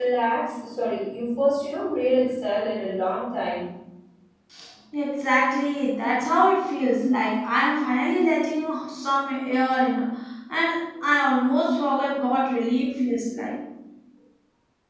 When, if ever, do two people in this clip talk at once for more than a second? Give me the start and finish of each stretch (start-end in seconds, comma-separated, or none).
none